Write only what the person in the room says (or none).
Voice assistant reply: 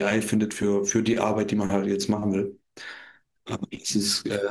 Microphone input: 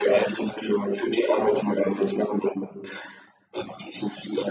none